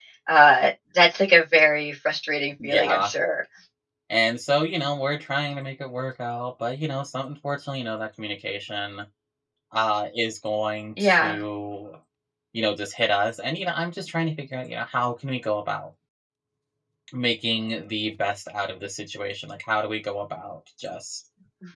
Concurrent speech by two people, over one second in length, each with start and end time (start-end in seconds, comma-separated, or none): none